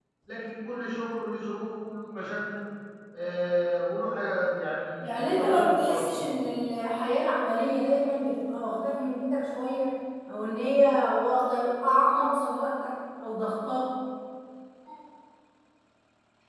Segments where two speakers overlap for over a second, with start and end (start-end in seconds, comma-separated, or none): 5.0-6.3